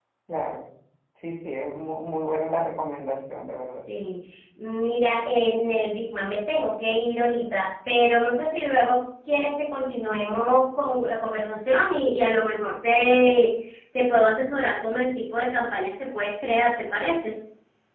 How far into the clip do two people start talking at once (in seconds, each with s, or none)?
none